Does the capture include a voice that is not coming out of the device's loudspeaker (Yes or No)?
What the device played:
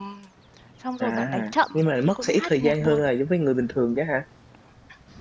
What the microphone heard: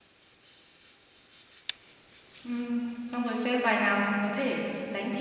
Yes